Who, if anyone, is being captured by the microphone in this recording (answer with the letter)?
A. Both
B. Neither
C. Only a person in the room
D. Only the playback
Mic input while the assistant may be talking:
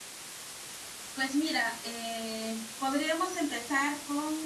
C